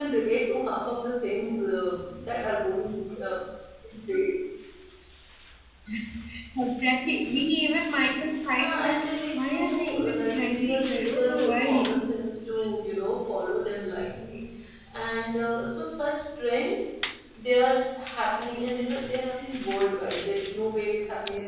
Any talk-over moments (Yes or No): Yes